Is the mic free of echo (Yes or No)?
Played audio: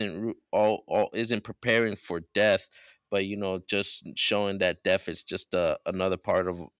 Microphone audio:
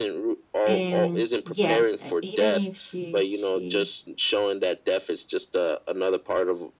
No